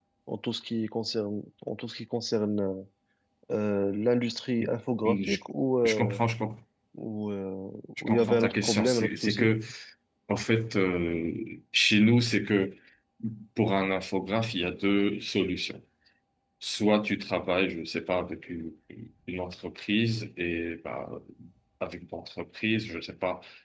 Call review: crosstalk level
present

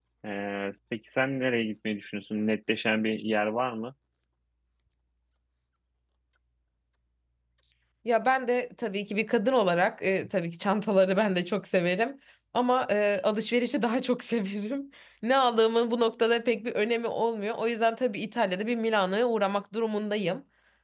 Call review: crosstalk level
none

